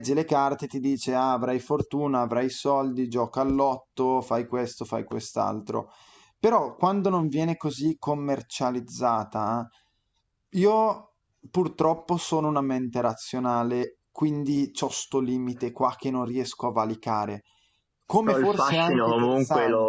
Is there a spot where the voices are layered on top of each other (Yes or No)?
Yes